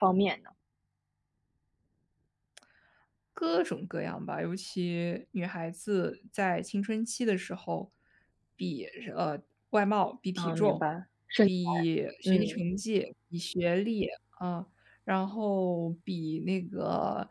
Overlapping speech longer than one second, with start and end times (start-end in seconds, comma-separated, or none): none